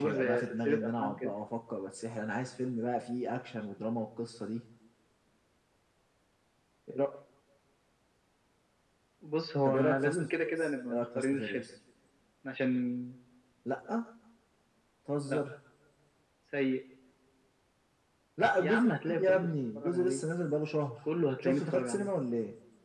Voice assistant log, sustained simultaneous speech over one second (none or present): present